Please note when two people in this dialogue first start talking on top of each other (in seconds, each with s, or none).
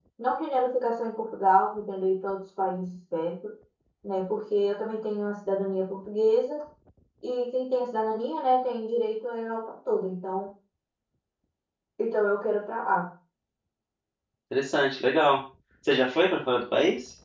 none